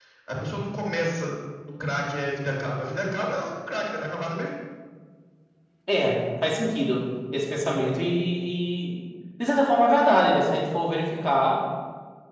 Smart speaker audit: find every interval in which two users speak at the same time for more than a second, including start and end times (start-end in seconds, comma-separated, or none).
none